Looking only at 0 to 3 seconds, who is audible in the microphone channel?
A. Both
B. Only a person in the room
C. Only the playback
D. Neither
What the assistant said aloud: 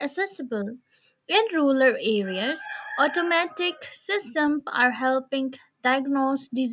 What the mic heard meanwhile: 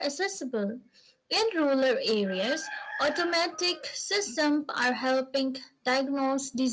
C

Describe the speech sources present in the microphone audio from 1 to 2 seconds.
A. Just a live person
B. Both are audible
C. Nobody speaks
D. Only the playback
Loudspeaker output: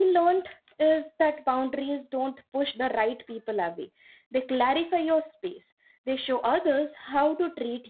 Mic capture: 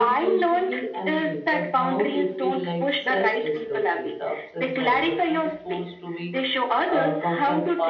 B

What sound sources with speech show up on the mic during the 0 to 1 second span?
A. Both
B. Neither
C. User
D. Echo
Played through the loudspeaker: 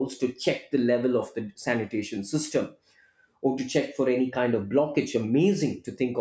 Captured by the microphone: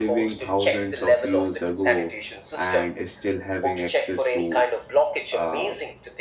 A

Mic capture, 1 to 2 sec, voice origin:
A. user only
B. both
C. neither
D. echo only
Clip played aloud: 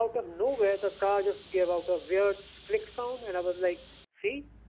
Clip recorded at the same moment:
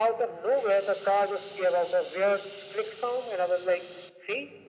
D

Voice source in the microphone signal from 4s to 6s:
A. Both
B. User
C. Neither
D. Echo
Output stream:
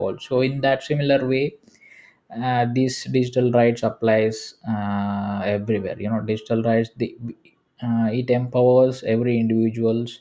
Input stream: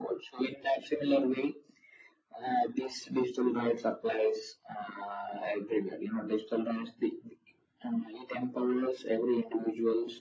D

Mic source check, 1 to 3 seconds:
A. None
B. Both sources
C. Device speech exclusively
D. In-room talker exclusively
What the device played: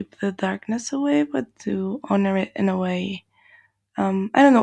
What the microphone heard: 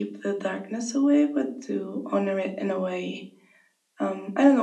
C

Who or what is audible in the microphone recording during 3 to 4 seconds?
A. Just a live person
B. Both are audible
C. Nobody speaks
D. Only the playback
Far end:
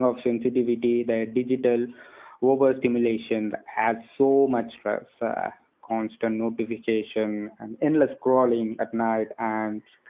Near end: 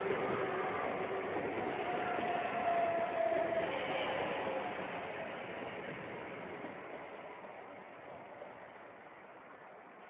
C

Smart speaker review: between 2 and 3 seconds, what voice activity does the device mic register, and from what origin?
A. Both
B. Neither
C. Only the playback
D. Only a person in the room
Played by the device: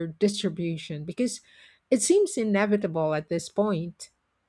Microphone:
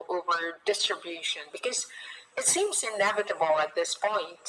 C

